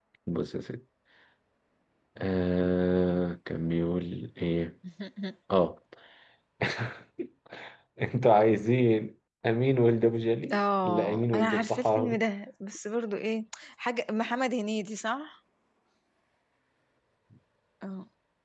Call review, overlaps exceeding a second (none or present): present